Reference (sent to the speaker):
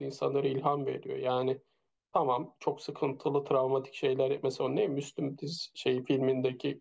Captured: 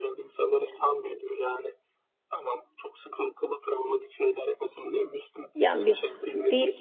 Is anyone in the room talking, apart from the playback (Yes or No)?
Yes